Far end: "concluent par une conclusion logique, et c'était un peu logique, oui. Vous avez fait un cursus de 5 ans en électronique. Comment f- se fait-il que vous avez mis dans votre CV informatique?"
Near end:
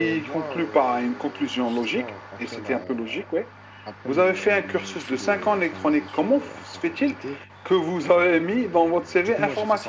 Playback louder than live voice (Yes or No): Yes